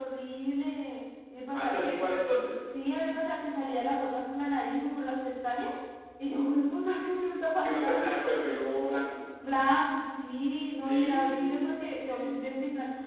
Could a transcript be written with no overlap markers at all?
No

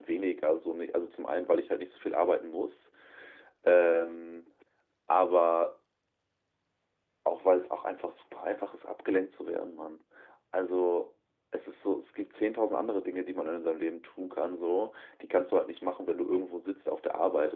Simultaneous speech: No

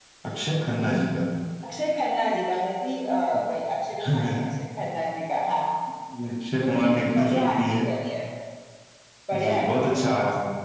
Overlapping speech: Yes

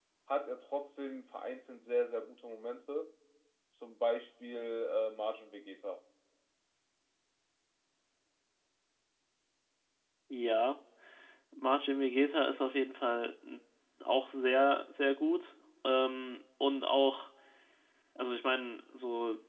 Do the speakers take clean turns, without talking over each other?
Yes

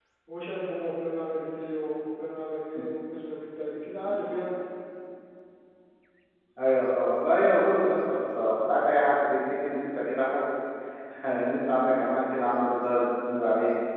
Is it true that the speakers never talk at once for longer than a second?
Yes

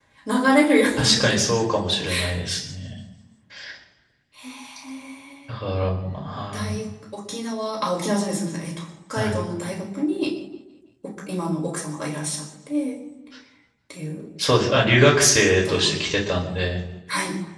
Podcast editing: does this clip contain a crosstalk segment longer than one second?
No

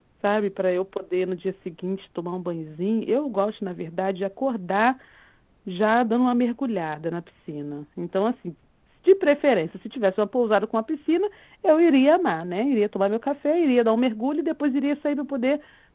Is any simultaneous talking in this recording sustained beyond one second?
No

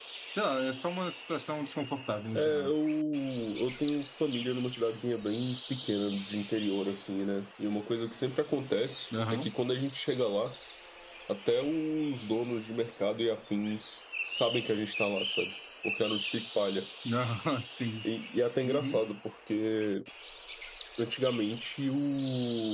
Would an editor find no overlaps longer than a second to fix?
Yes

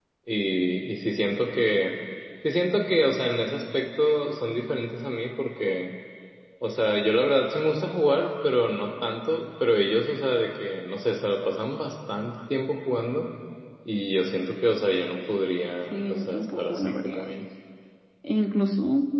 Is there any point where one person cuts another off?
Yes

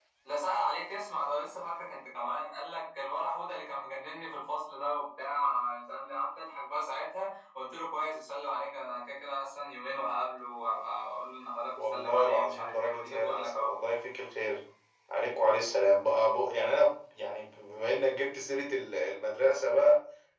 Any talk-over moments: Yes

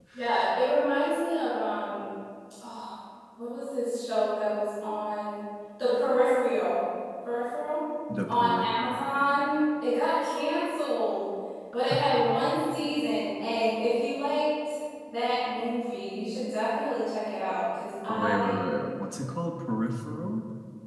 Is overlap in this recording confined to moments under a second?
Yes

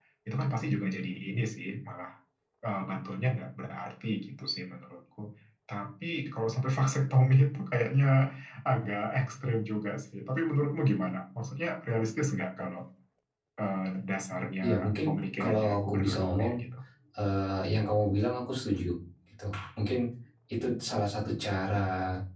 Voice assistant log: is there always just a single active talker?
No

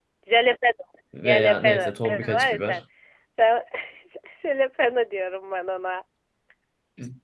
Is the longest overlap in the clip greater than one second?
Yes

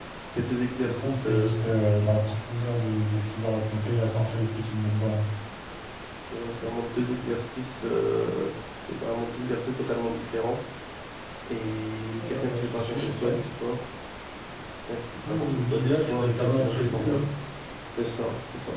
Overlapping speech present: Yes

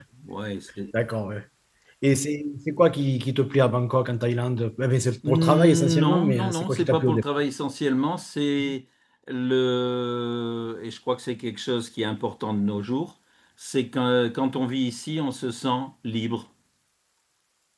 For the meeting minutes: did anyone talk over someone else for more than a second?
Yes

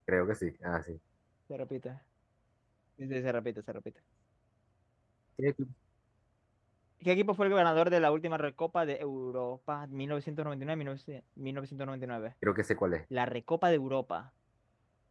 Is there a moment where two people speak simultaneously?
No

